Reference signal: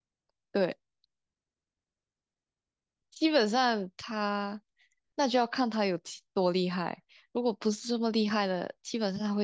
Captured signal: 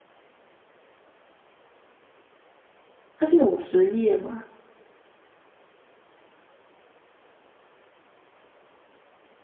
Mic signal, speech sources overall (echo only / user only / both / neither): user only